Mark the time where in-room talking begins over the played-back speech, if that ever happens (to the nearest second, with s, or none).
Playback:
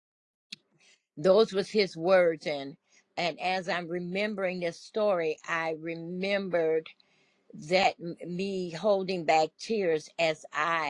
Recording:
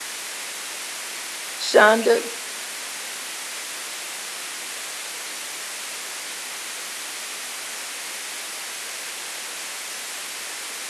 2 s